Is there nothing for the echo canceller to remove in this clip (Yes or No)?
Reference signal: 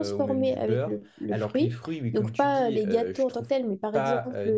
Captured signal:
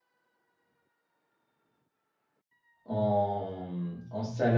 Yes